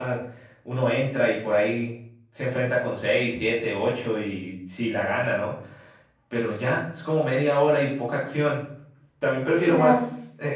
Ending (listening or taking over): listening